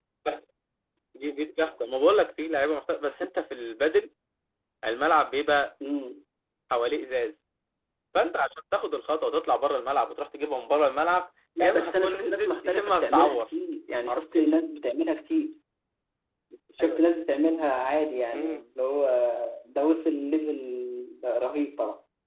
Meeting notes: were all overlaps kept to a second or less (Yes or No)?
No